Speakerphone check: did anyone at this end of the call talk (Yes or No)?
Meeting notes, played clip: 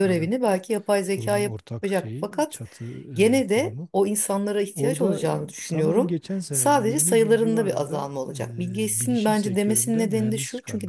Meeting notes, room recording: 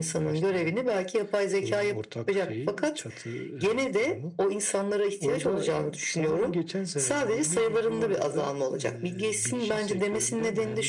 No